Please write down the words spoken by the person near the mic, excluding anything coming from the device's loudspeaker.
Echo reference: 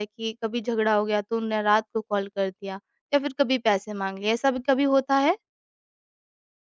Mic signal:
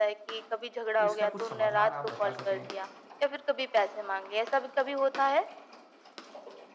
तो इसका कुछ समाधान आप बता सकें

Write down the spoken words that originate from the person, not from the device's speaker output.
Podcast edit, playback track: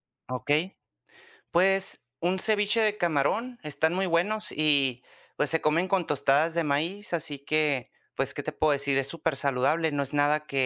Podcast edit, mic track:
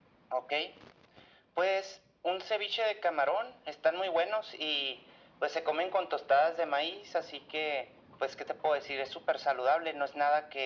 none

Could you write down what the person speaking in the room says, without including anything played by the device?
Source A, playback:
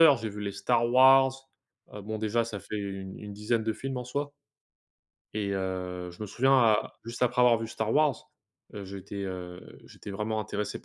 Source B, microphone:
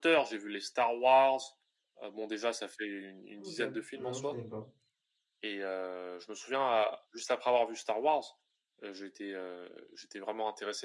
OK, non je connais pas.

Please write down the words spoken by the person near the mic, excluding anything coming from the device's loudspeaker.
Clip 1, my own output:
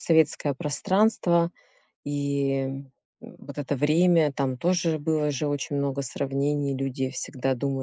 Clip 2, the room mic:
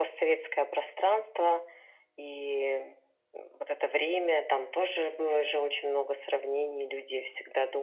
none

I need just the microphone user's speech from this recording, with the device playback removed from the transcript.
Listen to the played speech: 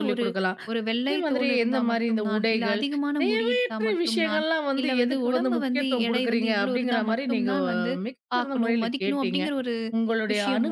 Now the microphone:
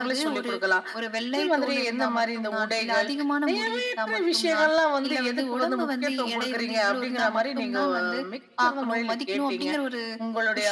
none

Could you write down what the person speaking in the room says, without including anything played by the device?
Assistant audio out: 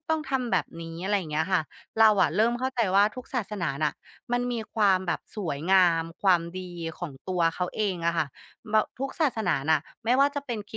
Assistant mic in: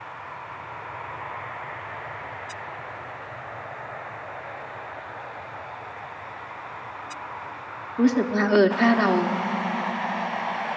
รู้สึกว่าเออถ้าเรา

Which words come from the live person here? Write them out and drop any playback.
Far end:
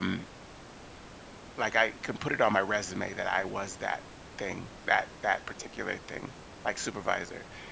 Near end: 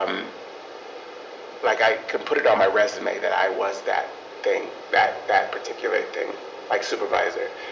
none

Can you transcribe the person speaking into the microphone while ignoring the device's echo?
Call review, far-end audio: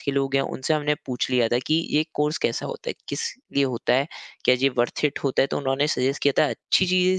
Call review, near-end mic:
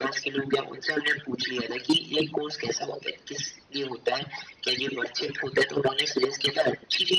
none

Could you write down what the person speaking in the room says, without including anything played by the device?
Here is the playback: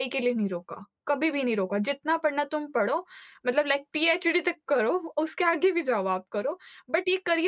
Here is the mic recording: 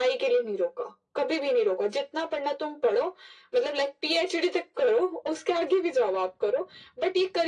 none

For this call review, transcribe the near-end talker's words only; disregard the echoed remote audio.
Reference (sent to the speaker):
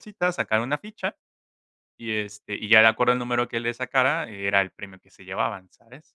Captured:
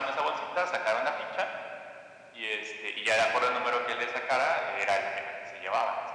none

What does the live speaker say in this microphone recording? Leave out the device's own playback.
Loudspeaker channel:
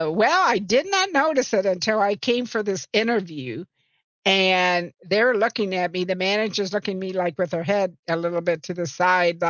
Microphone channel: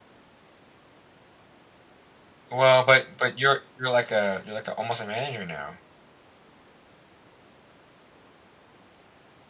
Well, but but you're you're like a you're like a almost a manager now.

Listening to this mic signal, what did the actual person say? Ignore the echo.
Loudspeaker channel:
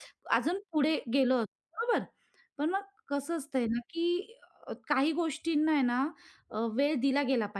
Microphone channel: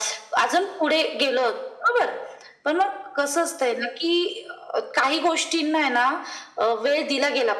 none

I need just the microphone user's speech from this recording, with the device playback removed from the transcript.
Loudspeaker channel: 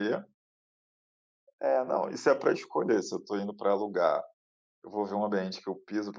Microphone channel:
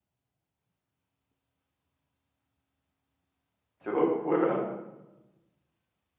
Que loucura, né.

